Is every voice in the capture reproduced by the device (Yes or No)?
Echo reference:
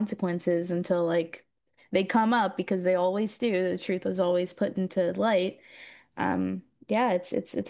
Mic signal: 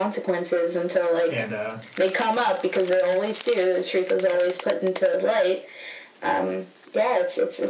No